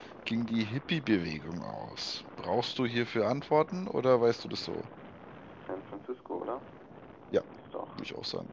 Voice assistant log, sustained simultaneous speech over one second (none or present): none